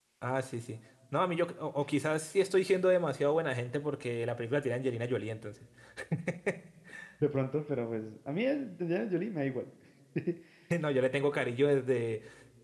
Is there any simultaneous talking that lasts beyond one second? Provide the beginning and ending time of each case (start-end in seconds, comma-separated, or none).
none